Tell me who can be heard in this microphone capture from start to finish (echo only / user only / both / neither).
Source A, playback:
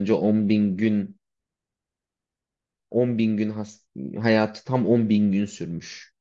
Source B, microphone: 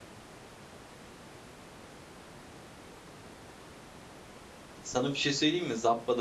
user only